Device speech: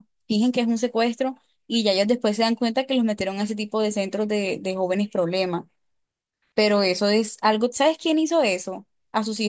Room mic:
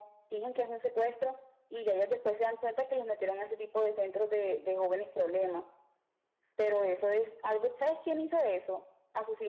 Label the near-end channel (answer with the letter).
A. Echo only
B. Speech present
A